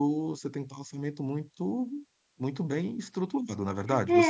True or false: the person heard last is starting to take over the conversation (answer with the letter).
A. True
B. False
A